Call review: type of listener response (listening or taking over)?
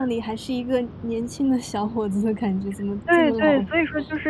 taking over